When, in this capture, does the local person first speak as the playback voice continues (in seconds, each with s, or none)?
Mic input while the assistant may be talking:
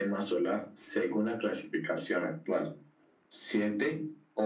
none